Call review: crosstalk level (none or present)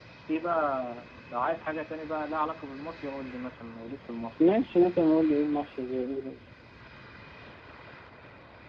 none